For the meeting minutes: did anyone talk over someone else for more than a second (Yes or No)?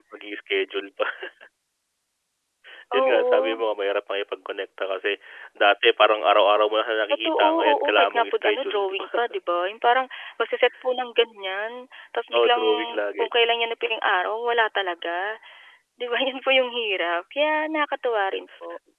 Yes